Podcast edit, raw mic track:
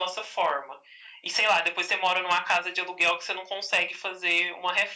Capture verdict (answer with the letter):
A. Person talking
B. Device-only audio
B